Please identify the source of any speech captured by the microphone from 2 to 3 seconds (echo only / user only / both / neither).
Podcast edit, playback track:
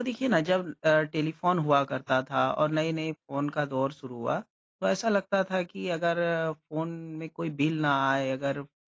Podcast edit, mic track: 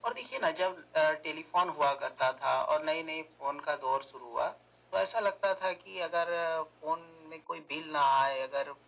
echo only